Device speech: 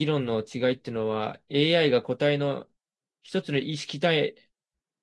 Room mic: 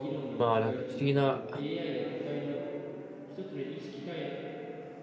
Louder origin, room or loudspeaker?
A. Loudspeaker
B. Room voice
B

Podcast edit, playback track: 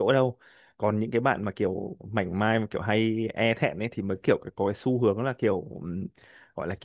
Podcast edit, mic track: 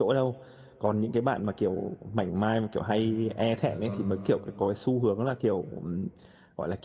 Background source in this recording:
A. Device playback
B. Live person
B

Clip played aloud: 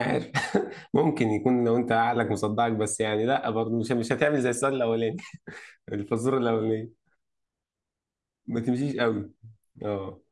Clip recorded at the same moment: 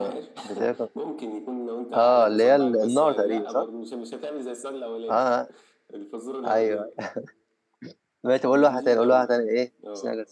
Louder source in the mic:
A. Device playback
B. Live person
B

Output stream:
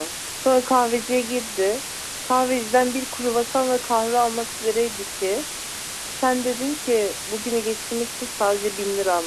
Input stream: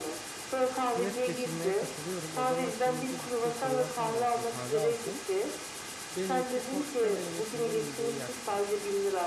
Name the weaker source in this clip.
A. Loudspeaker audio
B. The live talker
B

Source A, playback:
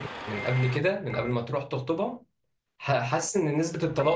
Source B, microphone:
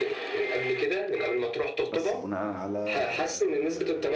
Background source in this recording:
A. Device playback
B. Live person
B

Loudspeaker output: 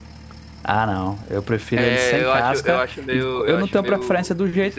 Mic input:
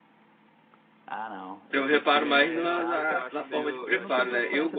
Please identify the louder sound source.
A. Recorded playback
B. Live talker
B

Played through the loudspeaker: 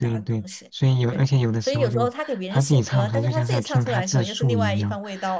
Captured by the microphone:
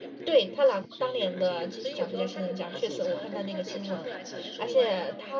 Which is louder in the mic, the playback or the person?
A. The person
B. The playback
A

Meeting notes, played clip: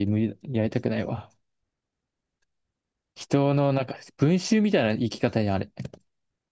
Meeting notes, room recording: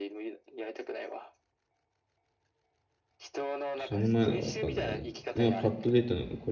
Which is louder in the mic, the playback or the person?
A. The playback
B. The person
B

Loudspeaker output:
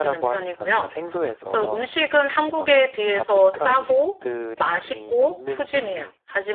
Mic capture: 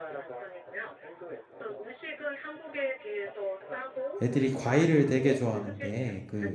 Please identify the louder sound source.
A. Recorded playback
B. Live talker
B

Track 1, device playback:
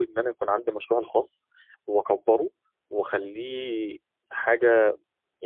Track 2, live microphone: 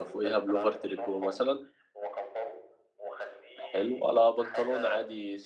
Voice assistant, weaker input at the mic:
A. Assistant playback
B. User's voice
A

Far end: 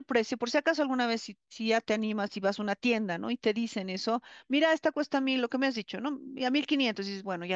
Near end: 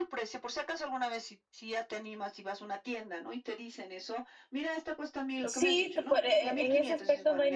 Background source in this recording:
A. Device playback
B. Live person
A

